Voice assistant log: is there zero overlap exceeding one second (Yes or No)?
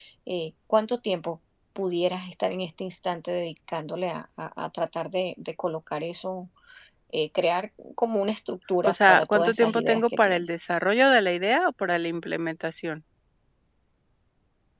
No